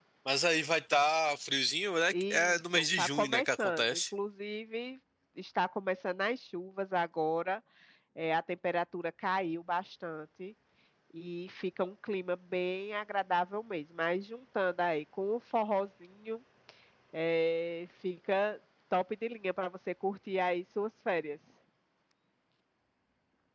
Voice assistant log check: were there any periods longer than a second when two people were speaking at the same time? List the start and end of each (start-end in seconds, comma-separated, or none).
2.1-4.0